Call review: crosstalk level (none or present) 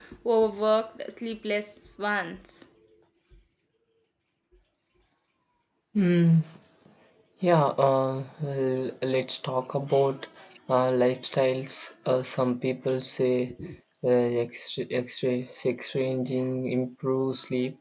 none